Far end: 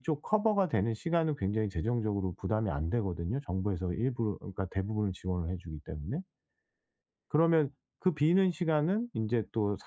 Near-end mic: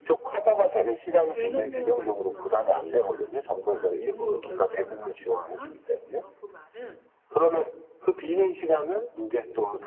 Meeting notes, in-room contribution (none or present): present